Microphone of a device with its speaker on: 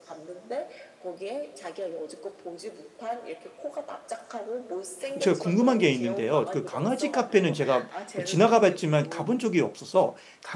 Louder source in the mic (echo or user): user